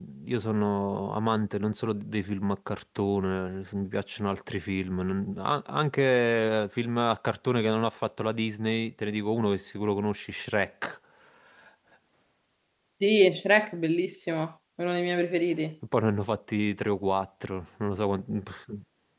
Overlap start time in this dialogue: none

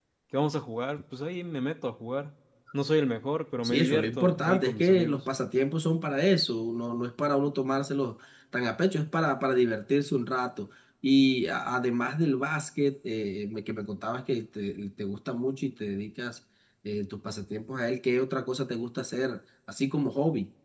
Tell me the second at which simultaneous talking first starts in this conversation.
3.6 s

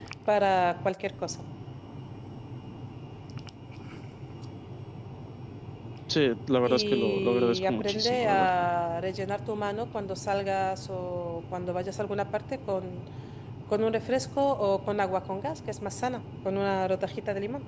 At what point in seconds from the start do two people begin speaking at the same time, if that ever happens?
6.6 s

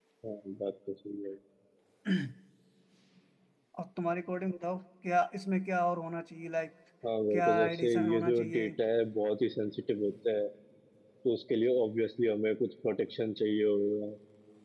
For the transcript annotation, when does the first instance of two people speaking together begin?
7.3 s

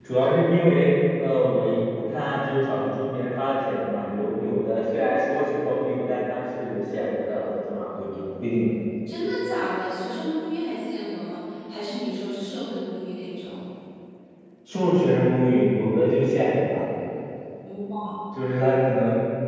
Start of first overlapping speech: none

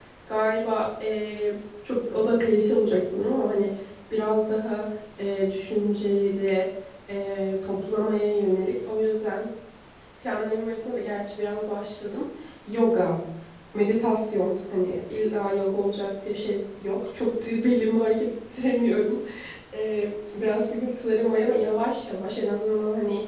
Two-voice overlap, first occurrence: none

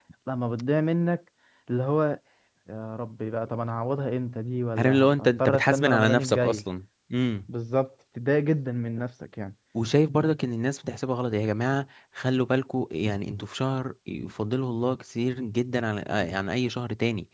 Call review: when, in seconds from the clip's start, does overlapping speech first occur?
4.8 s

